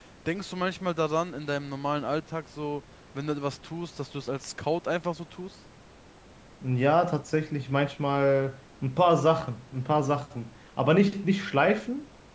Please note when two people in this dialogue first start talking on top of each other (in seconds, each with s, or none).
none